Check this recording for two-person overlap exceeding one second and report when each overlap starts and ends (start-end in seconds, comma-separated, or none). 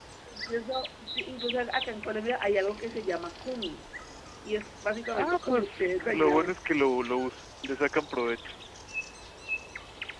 5.1-6.5